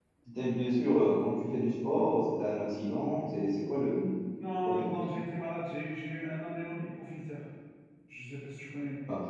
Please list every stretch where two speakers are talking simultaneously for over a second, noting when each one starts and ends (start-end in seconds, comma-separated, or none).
none